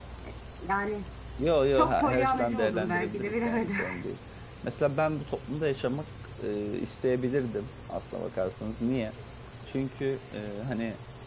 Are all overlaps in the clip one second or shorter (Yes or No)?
No